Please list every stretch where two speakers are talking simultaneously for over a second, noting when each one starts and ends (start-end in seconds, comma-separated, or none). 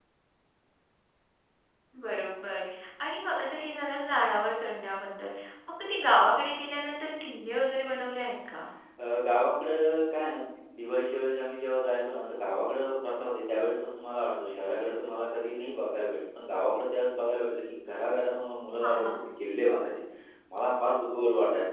none